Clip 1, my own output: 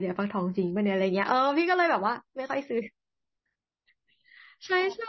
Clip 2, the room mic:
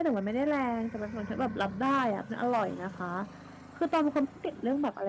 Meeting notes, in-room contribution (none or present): present